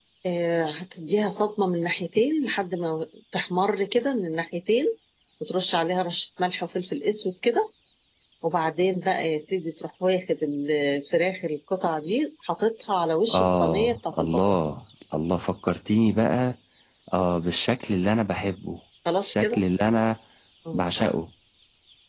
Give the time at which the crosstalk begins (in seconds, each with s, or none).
13.3 s